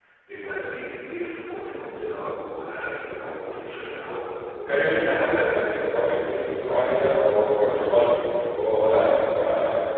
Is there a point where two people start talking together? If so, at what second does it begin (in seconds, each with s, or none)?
none